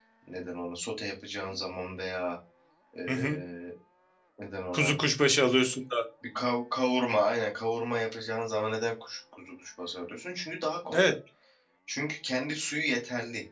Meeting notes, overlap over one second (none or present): none